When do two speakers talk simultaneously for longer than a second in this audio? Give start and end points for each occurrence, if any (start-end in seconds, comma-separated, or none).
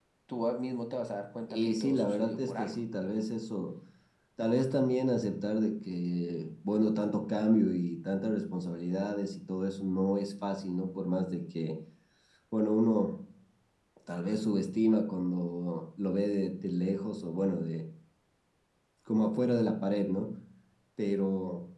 1.5-2.8